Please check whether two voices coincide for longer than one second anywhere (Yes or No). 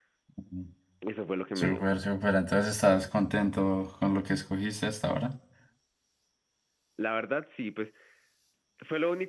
No